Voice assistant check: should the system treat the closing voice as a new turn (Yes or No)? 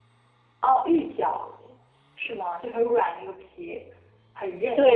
Yes